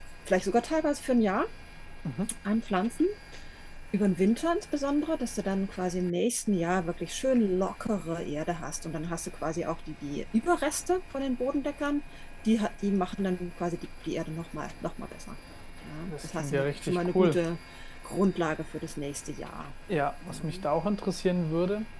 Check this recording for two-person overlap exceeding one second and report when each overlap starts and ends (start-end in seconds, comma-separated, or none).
16.1-17.4